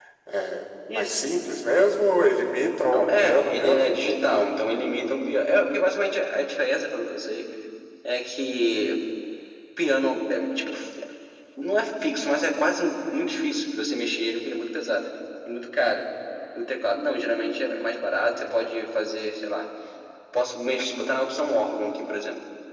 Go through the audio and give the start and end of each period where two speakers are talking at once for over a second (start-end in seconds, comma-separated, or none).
2.9-4.5